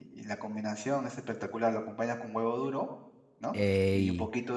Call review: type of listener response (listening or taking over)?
listening